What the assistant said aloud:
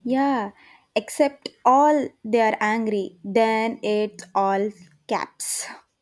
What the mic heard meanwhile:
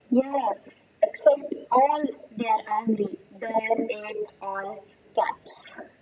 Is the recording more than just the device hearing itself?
No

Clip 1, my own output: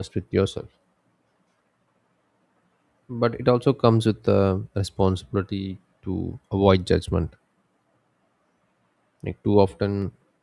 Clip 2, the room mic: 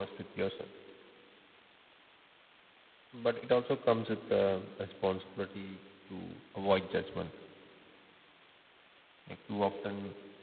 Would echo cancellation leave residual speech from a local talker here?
No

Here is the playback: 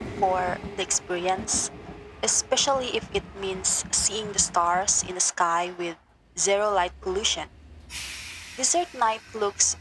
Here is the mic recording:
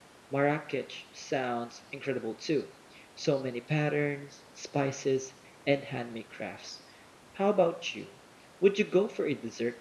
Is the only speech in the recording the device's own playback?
No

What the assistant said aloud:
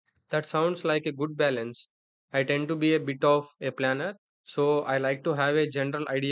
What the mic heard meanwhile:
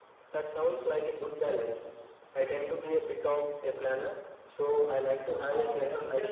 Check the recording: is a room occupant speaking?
Yes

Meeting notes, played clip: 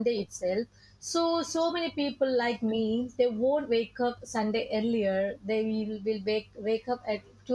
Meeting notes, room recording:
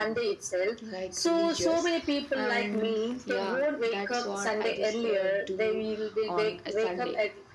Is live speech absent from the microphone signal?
No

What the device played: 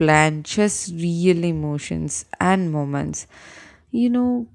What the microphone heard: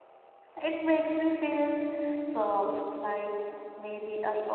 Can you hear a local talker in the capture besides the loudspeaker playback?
Yes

